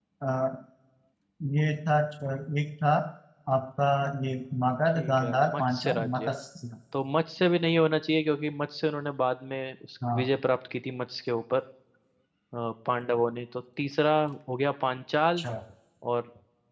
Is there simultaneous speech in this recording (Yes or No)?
Yes